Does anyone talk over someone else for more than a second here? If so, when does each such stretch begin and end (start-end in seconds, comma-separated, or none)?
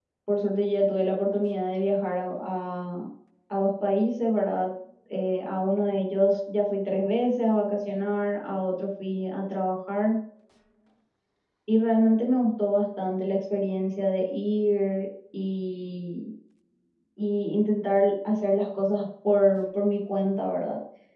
none